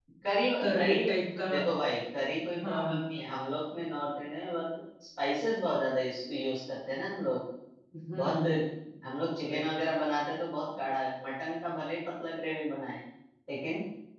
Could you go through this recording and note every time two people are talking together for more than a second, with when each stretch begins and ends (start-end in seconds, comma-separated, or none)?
none